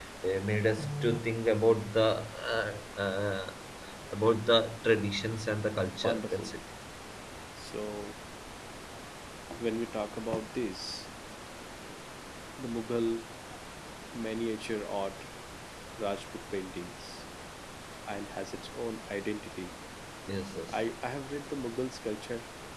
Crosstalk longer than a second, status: none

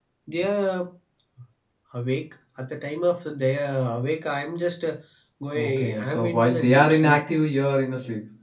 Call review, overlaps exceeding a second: present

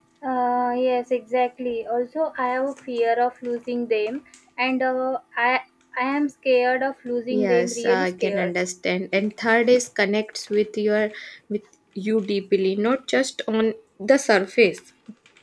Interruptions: present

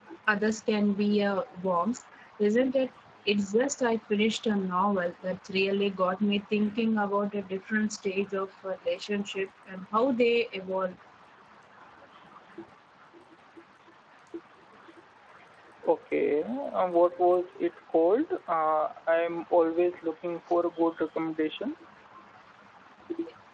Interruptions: none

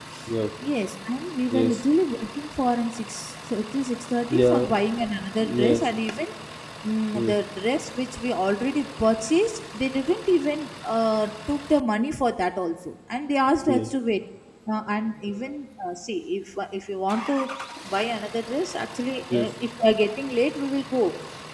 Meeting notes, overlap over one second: none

